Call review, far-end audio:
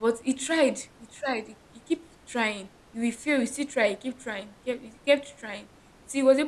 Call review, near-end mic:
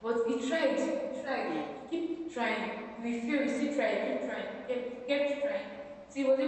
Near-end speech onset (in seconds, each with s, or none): 1.4 s